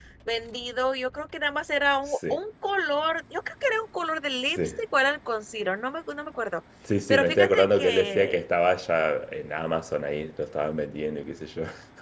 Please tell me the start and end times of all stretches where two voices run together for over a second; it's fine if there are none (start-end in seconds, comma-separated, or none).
7.1-8.4